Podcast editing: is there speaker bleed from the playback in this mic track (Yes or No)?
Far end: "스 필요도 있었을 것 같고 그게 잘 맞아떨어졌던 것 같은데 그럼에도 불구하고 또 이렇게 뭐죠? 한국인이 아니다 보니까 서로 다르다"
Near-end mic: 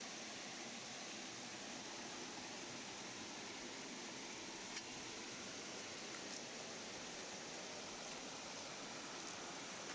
No